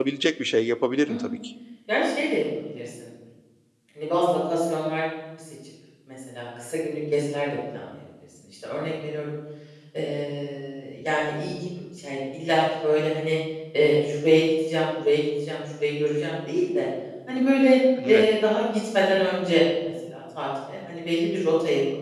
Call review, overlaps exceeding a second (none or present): none